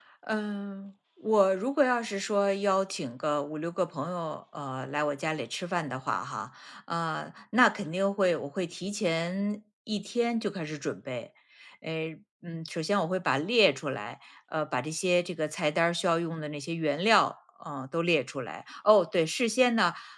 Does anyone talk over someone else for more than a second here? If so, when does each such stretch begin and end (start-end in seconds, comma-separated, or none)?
none